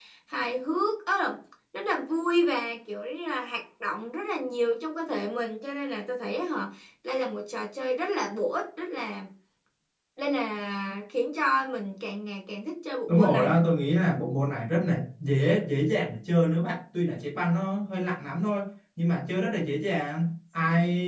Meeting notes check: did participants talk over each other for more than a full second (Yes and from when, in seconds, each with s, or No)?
No